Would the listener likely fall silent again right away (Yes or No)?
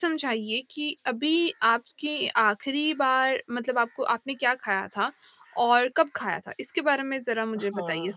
No